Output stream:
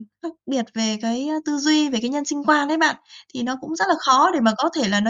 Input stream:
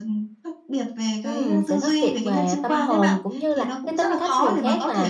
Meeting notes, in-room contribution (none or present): present